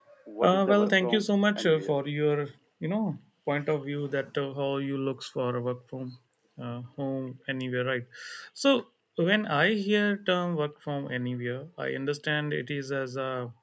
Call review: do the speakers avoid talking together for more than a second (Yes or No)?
No